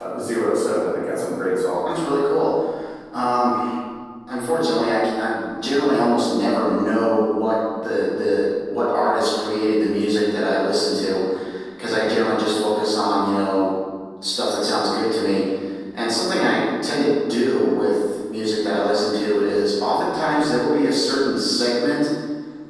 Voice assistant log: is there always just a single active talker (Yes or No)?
Yes